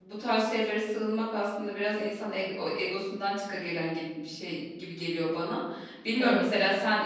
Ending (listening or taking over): listening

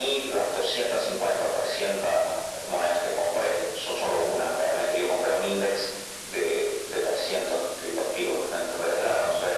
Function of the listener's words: listening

